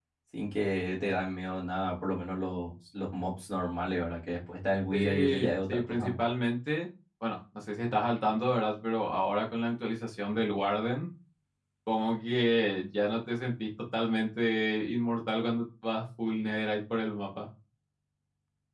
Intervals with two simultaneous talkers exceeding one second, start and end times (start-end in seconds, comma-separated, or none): 4.9-6.1